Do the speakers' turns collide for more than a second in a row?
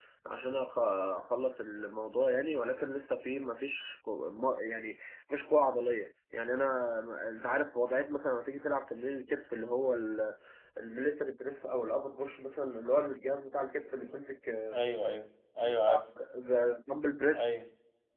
No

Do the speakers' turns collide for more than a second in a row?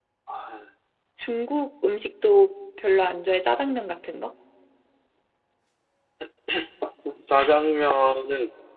No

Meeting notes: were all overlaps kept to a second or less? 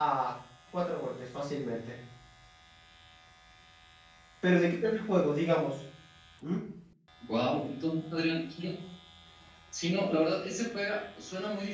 Yes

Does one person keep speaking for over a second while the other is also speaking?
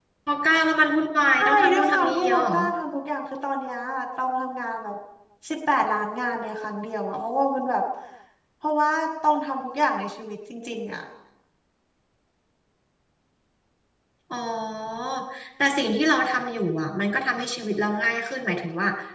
Yes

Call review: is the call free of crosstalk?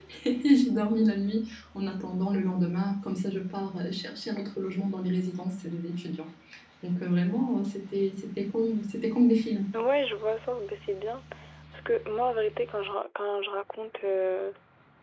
Yes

